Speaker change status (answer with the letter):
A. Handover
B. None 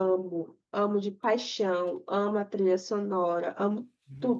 A